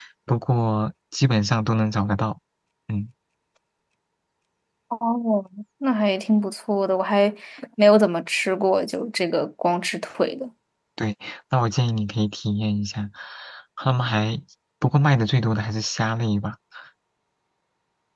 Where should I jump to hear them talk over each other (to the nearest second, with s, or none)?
none